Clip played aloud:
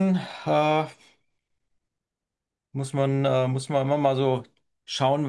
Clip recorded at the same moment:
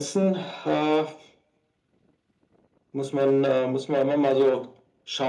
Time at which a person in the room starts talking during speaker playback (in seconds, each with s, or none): none